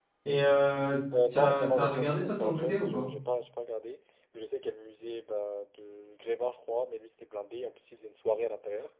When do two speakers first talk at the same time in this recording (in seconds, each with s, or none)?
1.3 s